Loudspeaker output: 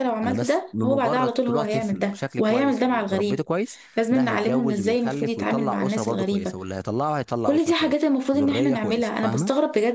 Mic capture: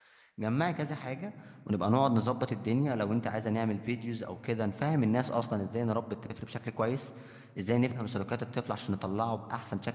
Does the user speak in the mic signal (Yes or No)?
Yes